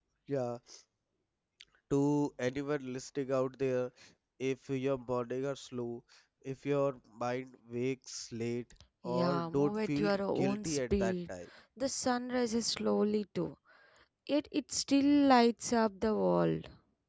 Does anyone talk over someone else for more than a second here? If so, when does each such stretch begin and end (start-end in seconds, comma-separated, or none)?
9.1-11.1